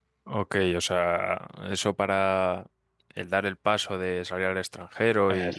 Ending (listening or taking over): listening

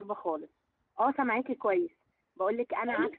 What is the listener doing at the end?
listening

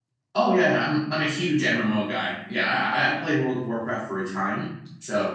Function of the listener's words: taking over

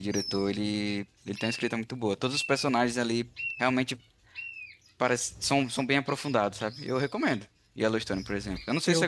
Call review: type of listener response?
taking over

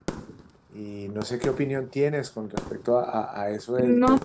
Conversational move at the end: listening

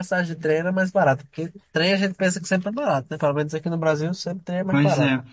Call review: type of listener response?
taking over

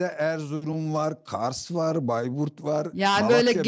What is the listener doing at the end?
taking over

